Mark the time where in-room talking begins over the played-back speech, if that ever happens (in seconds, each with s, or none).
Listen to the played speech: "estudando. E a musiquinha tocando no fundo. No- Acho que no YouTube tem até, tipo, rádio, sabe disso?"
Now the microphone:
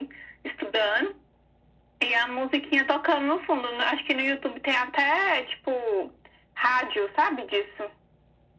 none